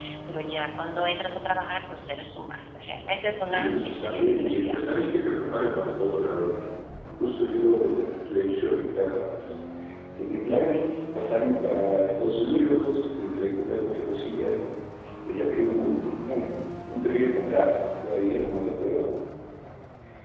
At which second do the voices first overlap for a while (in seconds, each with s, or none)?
3.4 s